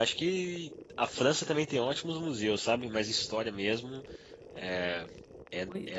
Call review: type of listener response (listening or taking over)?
listening